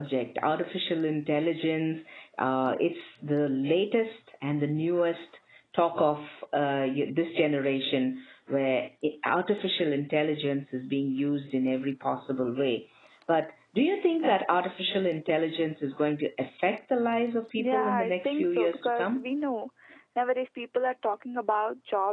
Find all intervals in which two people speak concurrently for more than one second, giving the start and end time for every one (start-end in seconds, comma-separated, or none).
17.6-19.2